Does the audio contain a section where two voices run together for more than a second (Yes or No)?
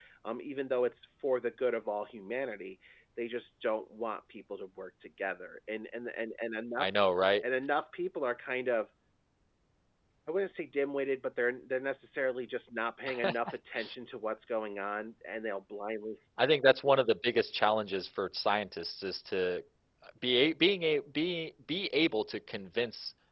No